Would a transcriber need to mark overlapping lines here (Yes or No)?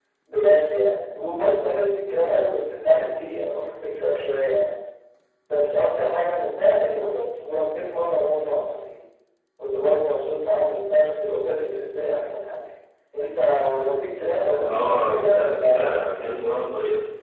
Yes